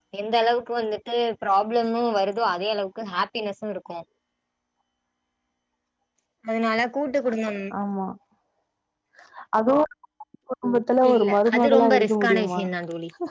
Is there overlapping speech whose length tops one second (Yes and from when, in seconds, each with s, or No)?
Yes, from 11.0 s